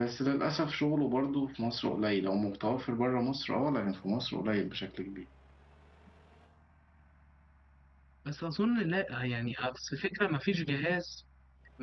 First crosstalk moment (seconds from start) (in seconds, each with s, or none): none